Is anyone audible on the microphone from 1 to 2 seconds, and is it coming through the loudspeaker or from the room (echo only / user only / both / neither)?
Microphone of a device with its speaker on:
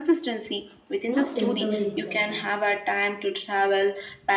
both